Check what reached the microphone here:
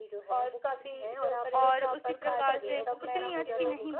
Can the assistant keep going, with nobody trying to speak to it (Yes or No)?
No